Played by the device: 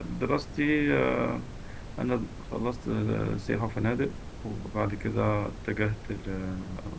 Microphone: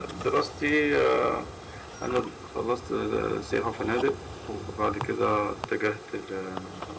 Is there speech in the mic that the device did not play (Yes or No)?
No